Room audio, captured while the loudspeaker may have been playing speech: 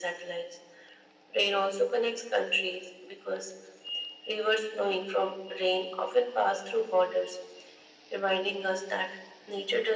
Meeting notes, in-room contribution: none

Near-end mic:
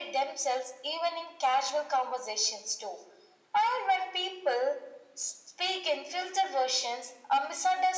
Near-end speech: none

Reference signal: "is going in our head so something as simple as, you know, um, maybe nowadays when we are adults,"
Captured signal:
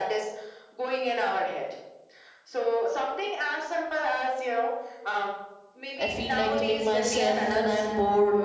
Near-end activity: present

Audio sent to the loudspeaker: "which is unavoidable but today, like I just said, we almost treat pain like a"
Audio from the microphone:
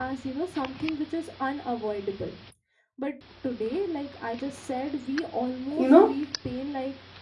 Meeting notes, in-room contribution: present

